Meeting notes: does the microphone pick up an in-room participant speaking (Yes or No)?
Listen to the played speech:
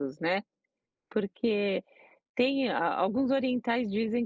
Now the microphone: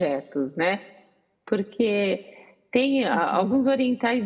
Yes